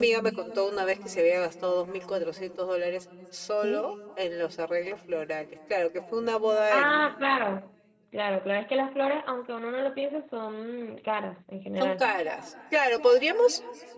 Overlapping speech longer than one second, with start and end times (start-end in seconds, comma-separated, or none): none